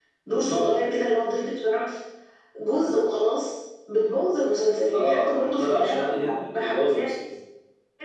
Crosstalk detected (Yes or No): Yes